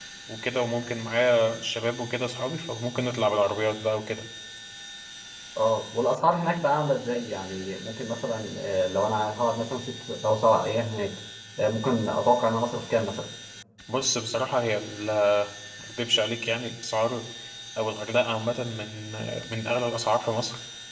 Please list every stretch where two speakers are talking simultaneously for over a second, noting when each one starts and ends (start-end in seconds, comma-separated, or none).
none